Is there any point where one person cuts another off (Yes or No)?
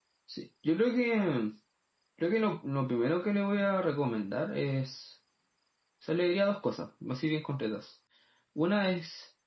No